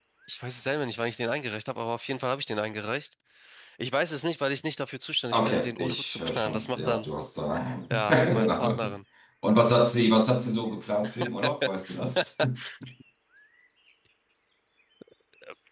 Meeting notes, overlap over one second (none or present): present